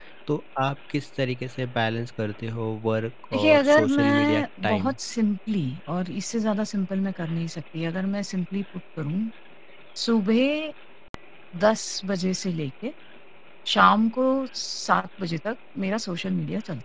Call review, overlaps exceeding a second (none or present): present